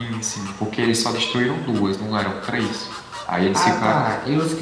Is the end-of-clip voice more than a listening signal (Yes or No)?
Yes